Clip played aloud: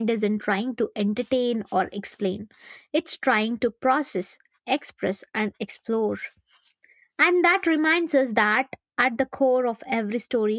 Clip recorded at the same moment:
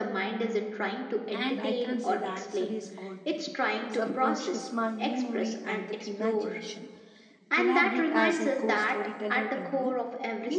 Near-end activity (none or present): present